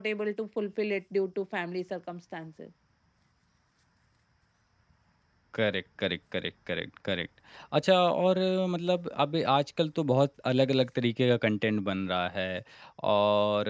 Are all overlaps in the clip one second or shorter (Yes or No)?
Yes